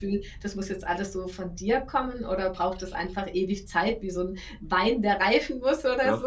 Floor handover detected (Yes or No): Yes